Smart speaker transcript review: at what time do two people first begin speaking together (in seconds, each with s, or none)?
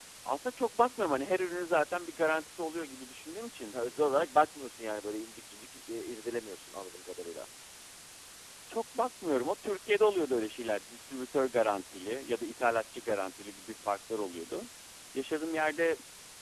none